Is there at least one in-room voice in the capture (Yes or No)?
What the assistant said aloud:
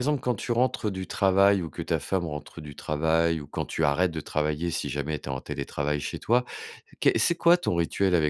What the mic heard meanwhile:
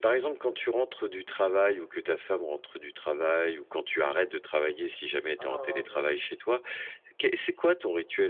Yes